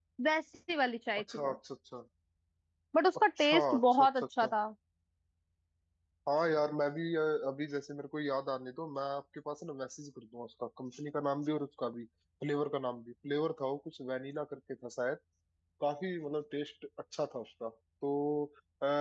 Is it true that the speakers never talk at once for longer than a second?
No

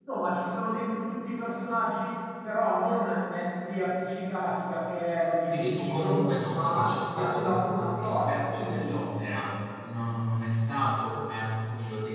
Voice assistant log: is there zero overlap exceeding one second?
No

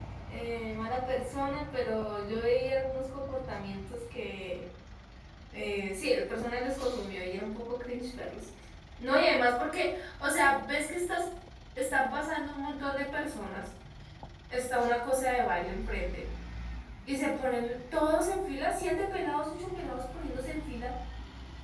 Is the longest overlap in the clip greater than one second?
No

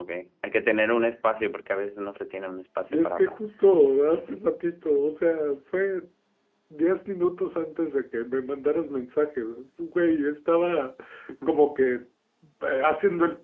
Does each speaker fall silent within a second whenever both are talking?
Yes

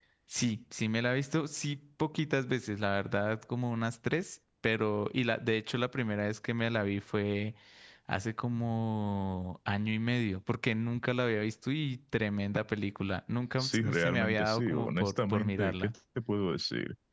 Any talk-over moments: Yes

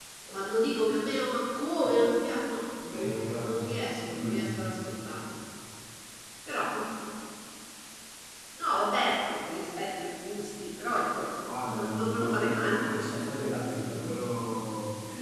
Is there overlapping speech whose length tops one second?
Yes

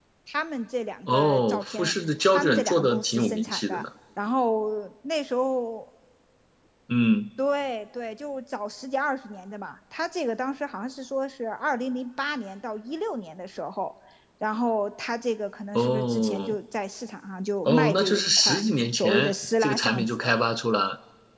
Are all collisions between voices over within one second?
No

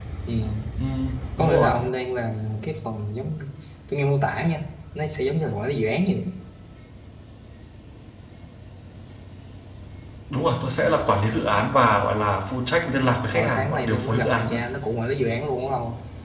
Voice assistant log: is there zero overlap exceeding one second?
No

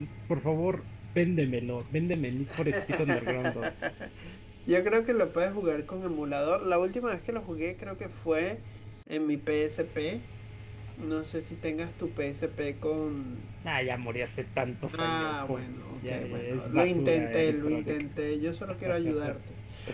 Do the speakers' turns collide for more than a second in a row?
Yes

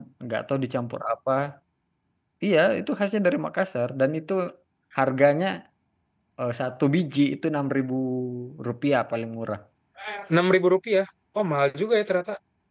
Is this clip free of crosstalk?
Yes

